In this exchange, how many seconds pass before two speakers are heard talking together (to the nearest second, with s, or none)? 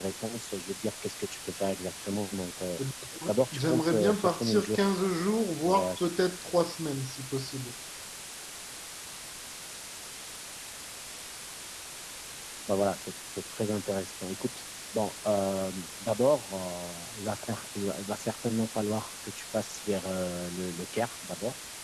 4 s